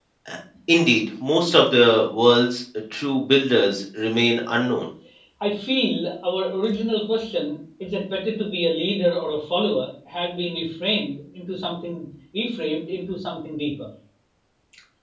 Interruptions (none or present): none